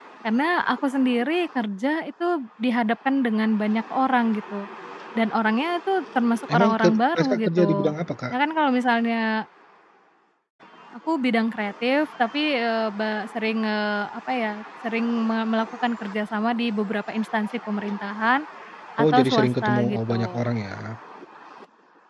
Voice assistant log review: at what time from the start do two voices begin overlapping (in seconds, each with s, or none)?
6.5 s